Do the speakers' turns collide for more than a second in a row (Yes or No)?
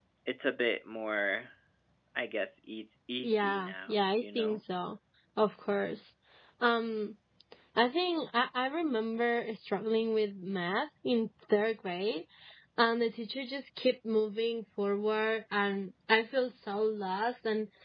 Yes